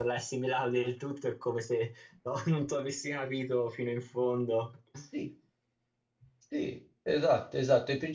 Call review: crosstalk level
none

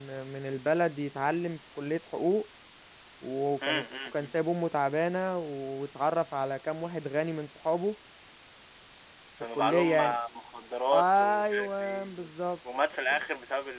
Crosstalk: present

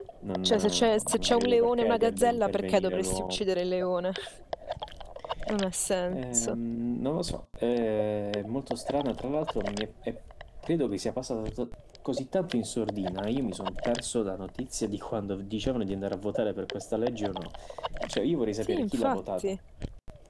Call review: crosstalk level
present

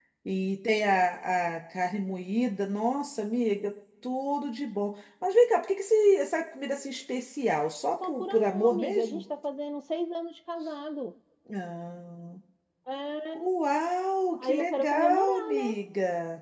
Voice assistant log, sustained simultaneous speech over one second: present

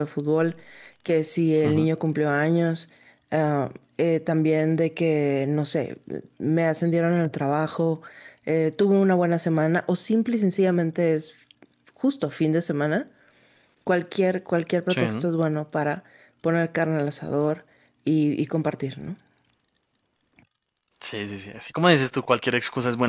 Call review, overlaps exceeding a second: none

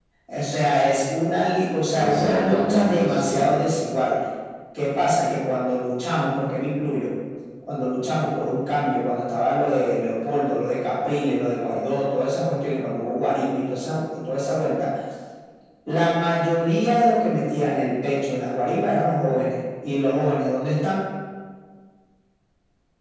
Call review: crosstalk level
present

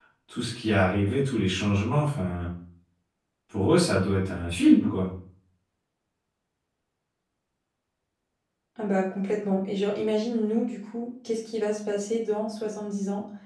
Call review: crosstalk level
none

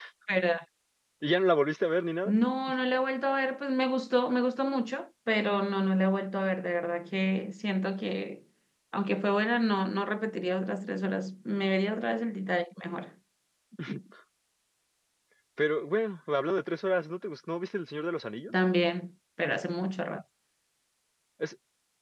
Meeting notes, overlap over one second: none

